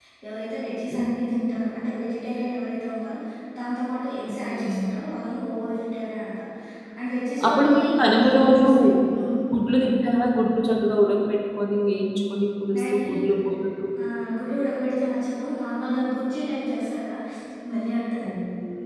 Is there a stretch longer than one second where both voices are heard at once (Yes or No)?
Yes